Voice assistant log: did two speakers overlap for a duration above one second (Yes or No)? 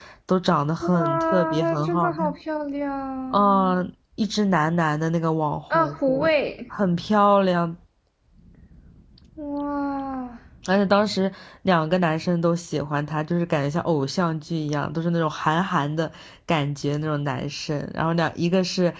Yes